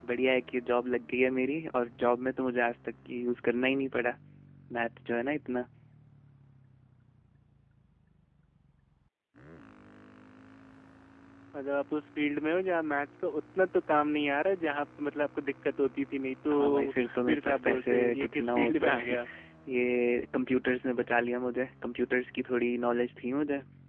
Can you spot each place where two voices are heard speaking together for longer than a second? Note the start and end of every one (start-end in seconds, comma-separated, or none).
16.5-19.2